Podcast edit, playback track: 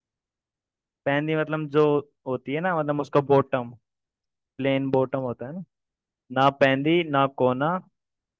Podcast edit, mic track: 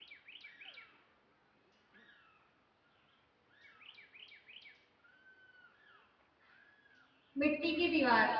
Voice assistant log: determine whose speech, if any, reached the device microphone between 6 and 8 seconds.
user only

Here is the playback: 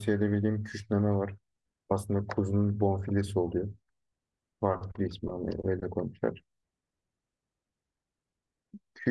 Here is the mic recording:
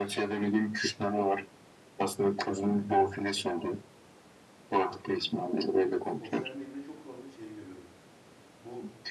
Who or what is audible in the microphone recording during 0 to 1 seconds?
echo only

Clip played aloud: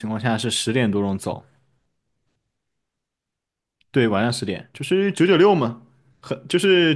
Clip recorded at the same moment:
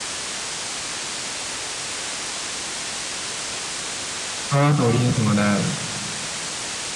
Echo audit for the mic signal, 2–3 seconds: neither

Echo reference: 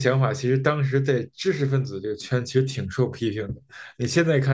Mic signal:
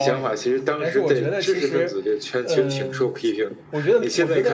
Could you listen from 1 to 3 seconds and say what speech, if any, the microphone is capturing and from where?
both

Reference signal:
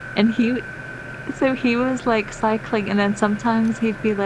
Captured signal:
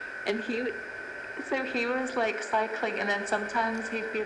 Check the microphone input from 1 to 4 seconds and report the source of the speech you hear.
echo only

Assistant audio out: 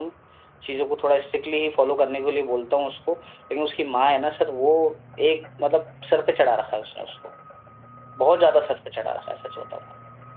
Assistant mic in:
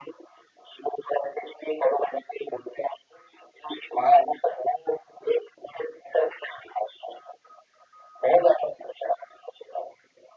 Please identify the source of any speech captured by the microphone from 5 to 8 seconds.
echo only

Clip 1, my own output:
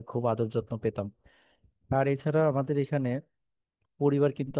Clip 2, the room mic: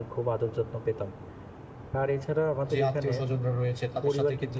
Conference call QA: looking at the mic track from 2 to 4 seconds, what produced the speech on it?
both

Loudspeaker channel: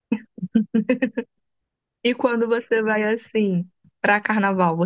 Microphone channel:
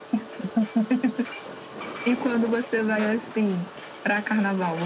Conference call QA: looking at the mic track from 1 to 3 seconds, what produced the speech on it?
echo only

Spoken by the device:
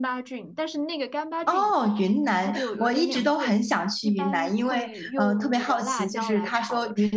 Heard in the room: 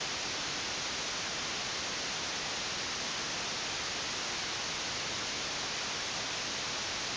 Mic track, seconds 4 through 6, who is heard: neither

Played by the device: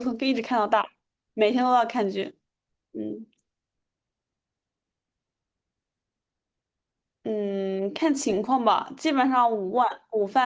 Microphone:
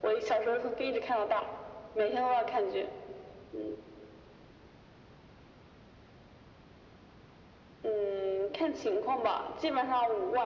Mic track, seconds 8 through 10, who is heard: echo only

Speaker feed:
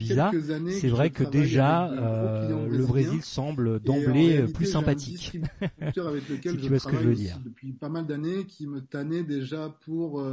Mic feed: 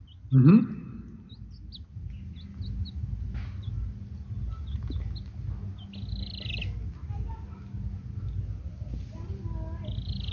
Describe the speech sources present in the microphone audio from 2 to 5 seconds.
neither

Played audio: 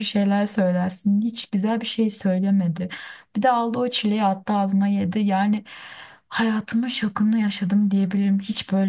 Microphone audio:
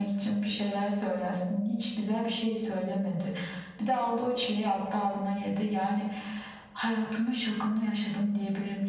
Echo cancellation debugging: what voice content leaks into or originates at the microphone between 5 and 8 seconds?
echo only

